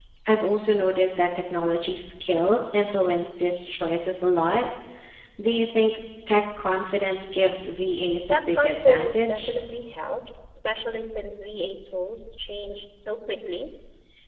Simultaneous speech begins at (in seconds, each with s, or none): 8.2 s